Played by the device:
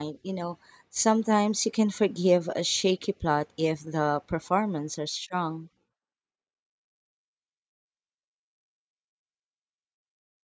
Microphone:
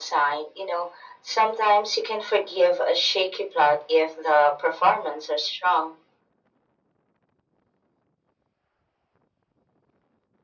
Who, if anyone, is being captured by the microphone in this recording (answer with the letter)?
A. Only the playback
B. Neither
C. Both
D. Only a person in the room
A